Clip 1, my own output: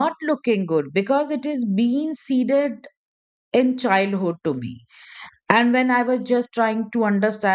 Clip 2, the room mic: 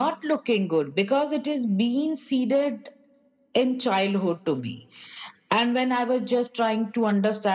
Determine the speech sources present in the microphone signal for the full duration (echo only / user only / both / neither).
echo only